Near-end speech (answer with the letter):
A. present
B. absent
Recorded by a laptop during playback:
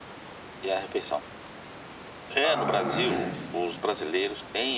A